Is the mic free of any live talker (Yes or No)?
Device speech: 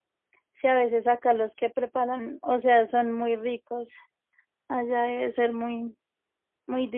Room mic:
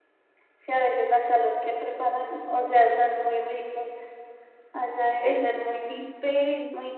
No